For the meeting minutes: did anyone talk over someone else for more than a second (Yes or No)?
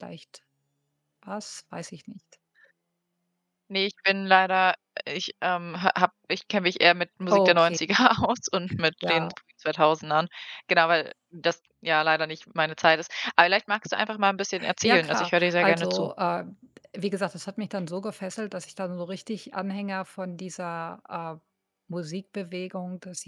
Yes